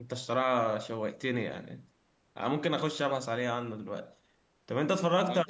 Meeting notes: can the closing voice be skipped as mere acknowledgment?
Yes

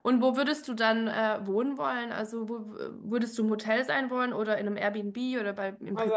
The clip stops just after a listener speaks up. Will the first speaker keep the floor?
No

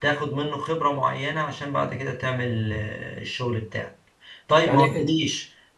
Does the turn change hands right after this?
No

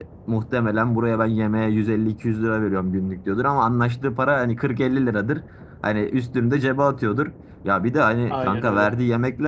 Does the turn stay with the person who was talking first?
Yes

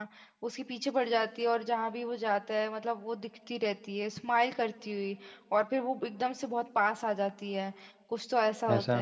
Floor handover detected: No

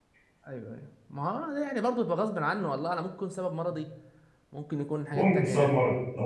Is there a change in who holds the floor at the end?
Yes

